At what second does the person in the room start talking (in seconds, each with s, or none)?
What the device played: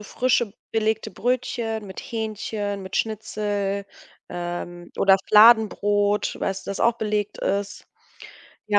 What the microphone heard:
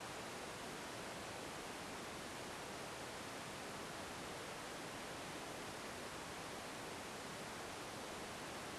none